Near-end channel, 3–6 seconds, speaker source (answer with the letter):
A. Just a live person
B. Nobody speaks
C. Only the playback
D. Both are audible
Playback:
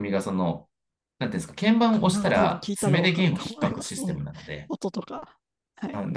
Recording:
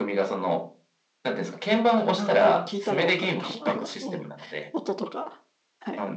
C